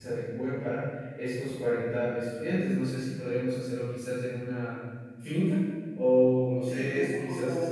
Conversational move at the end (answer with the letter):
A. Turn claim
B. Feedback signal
A